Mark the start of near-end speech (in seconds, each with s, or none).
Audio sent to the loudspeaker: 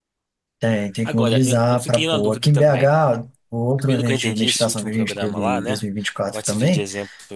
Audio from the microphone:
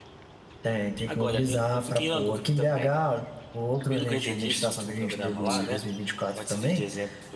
5.5 s